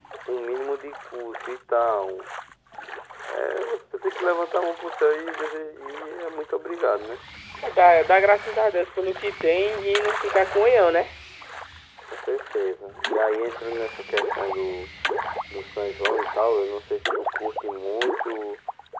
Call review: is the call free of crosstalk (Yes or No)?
Yes